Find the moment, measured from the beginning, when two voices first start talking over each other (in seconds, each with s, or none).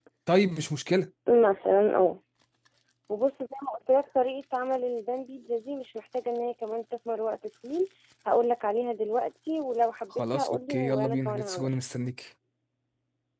10.1 s